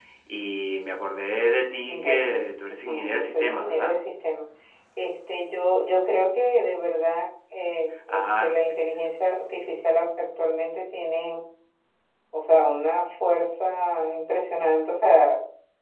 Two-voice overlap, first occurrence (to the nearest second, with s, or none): 2 s